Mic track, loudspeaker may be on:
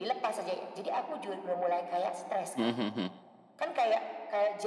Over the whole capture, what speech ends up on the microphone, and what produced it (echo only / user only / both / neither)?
both